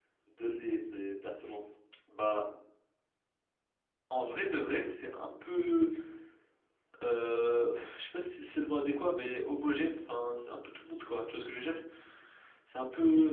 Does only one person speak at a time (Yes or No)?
Yes